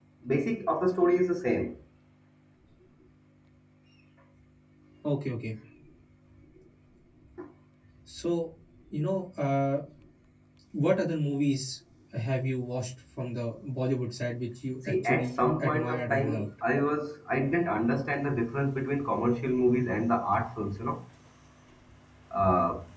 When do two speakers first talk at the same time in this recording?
14.9 s

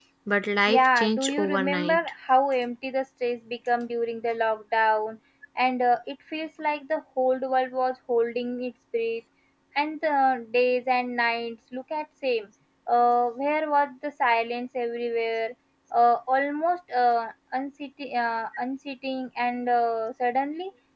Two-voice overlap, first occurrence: 0.7 s

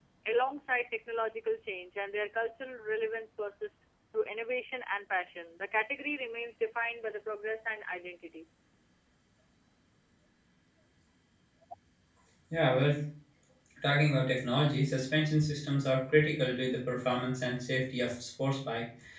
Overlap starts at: none

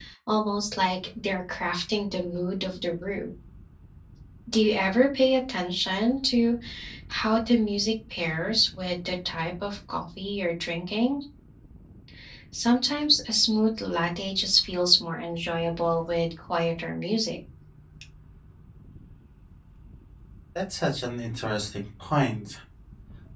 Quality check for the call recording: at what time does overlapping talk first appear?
none

